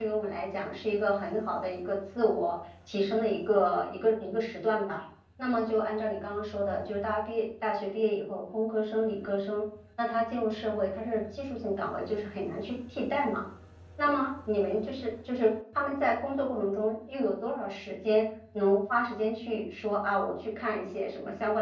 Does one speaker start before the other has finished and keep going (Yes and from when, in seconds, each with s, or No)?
No